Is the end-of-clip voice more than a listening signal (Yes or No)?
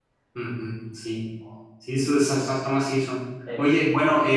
No